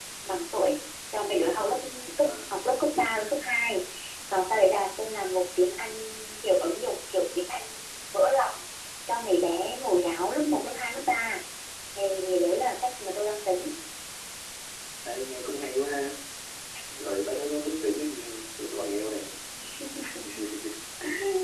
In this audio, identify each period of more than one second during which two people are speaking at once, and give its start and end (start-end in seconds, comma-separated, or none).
none